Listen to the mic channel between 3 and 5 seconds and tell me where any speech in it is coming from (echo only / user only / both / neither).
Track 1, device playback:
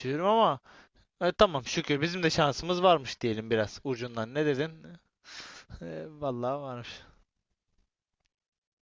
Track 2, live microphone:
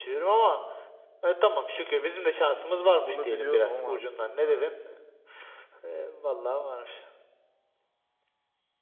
both